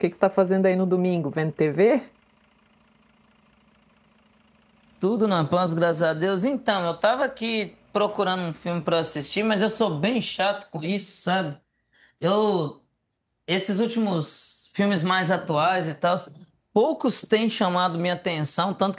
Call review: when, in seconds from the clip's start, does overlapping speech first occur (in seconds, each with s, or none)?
none